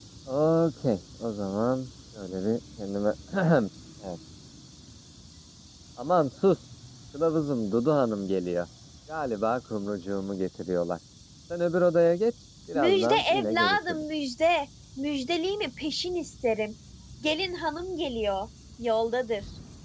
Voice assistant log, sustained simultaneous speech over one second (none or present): present